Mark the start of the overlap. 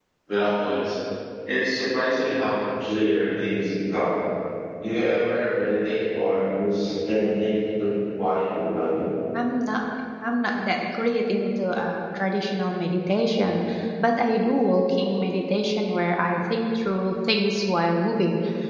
none

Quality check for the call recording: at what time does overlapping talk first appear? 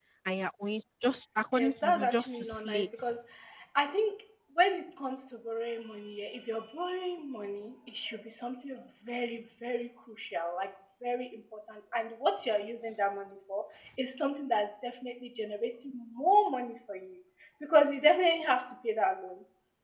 1.5 s

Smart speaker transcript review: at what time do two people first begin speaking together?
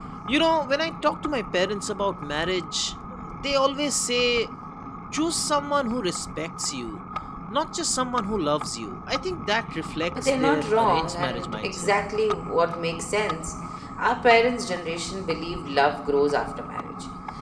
10.2 s

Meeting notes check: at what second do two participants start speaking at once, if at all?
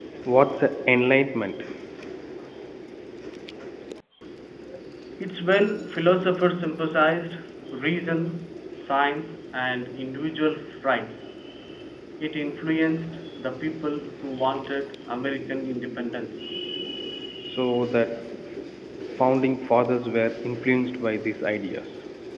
none

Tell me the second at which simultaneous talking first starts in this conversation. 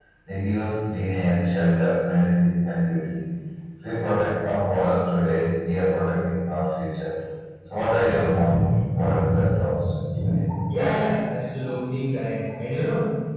none

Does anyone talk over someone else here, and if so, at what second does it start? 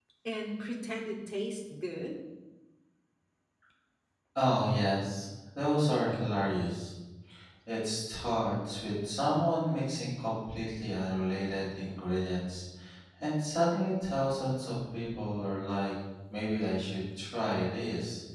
none

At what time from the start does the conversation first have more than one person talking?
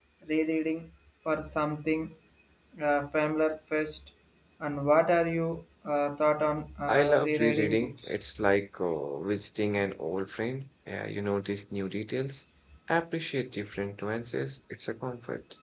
6.9 s

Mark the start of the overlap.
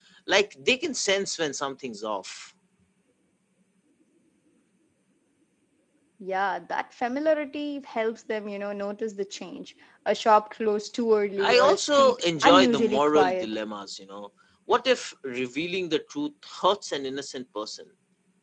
11.4 s

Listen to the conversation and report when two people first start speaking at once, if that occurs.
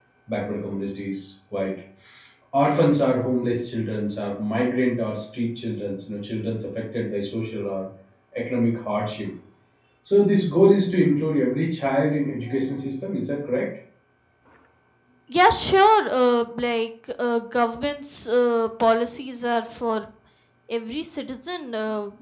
none

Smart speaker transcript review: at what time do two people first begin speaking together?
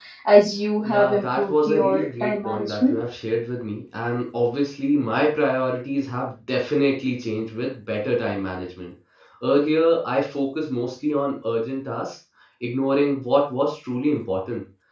0.8 s

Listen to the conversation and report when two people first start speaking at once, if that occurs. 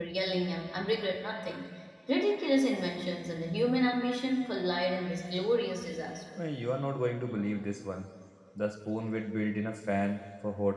none

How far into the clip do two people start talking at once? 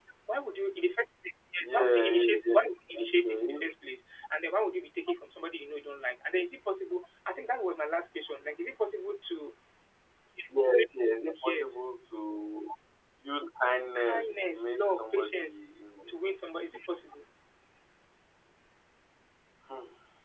1.6 s

